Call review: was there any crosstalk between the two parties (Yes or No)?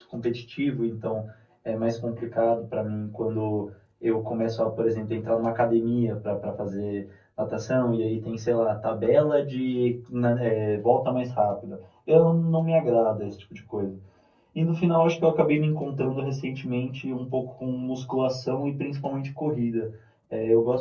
No